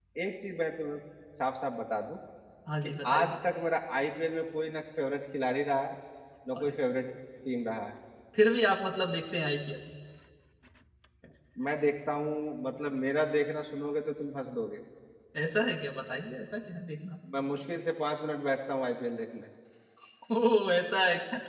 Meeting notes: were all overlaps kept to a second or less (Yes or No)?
Yes